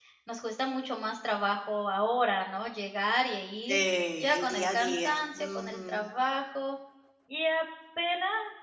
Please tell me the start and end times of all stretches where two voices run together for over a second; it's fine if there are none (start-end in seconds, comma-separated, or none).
4.3-6.1